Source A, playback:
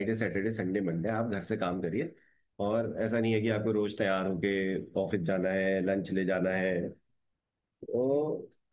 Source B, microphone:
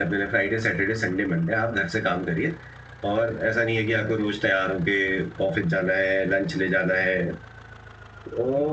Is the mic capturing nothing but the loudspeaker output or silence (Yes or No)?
Yes